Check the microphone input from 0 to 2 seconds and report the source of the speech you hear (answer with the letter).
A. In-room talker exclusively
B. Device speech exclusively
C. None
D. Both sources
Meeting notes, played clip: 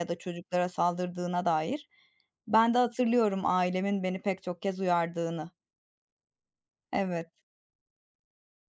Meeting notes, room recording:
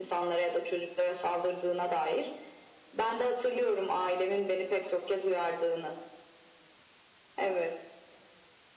B